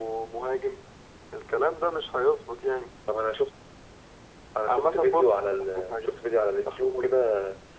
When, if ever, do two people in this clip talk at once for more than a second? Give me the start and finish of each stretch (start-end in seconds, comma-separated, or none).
4.7-6.1